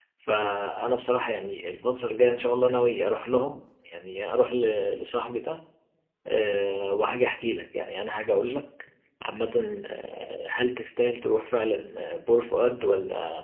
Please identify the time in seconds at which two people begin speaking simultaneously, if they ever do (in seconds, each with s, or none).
none